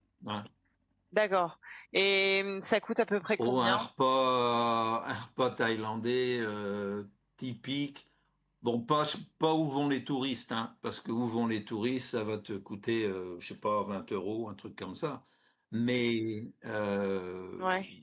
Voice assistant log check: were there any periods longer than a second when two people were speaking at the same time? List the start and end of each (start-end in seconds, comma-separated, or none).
none